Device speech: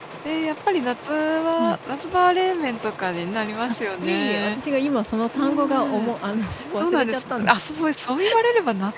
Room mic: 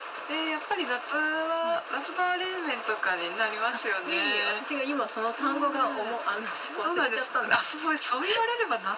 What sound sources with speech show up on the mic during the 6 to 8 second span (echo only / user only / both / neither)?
echo only